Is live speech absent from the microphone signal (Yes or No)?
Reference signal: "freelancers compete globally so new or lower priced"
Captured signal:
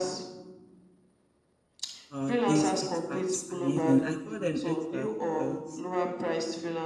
No